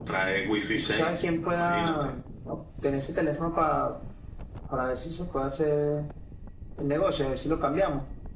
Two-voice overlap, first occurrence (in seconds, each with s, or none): 0.7 s